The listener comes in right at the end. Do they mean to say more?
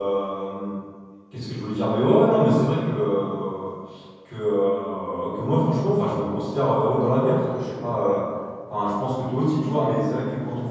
No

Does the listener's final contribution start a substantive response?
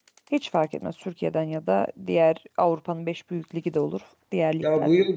Yes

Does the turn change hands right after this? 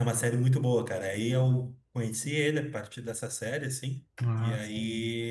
No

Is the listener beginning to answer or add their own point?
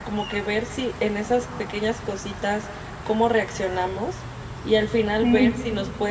No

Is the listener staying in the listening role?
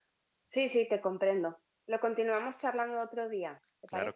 No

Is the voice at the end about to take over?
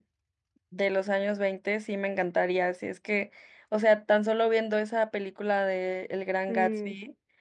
No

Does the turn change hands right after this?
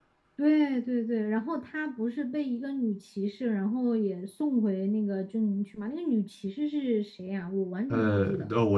Yes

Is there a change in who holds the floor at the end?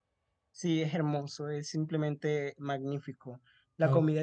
No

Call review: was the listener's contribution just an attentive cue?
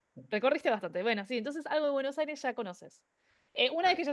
Yes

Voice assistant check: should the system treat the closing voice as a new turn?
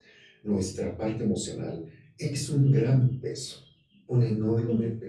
Yes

